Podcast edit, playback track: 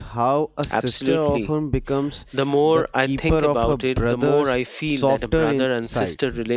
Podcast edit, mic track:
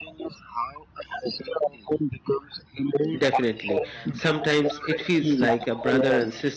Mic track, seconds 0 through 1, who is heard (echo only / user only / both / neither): echo only